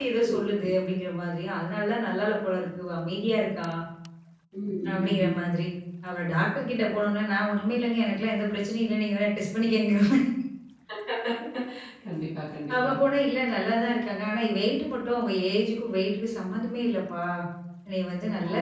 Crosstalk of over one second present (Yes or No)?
No